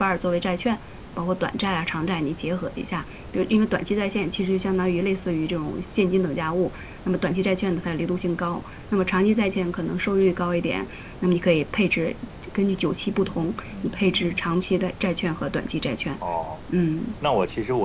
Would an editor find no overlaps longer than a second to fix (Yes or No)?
No